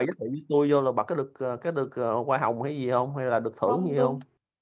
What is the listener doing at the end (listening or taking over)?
taking over